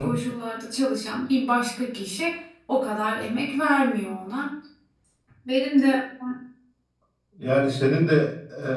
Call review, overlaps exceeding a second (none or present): none